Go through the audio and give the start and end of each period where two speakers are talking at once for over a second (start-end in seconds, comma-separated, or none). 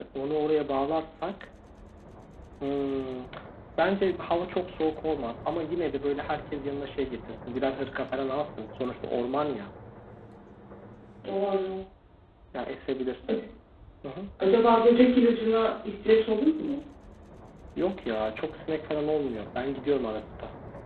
none